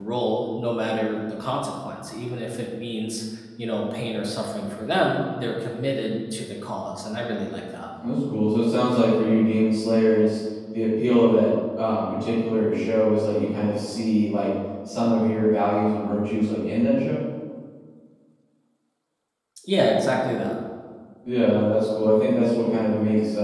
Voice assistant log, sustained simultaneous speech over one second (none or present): none